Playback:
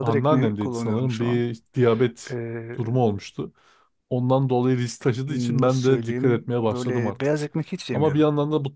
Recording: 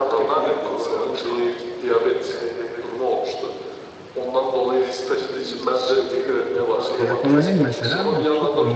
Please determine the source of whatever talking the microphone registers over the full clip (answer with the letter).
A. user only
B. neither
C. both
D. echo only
C